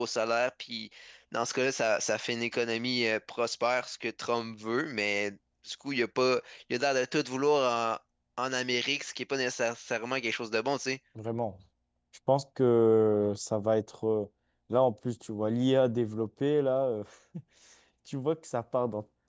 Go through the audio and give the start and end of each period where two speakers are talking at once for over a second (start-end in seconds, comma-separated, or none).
none